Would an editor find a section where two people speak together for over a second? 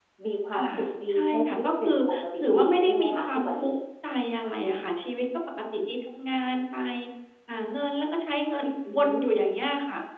Yes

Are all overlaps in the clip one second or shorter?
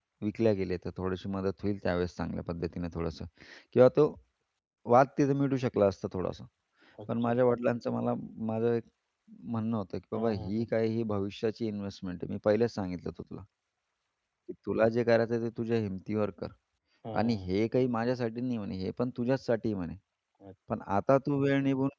Yes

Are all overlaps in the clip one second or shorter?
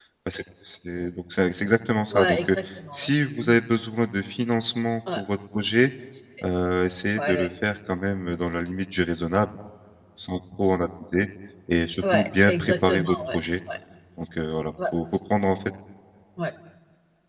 No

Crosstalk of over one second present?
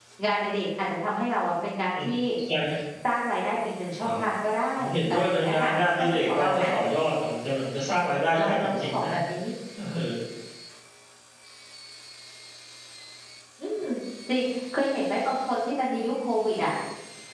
Yes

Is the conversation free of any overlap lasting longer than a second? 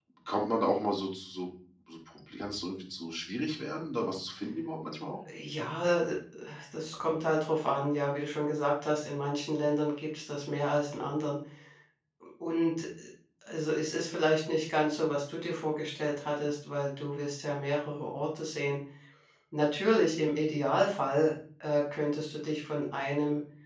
Yes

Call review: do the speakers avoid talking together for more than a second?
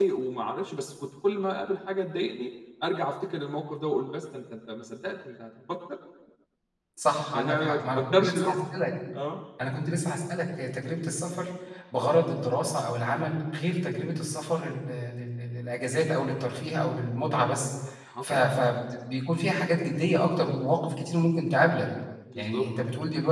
No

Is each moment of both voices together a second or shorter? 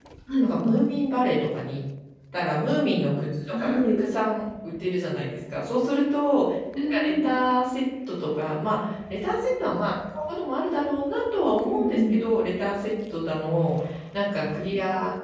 Yes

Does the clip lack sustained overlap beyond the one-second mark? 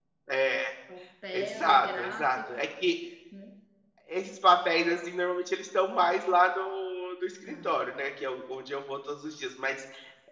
No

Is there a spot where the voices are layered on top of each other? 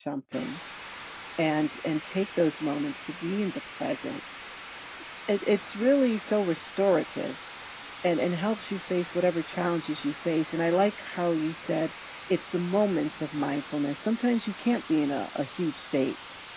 No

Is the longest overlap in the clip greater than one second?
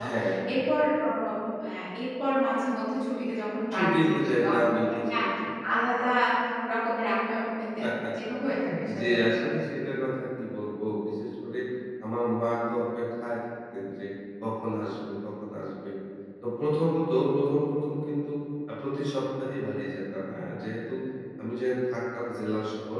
Yes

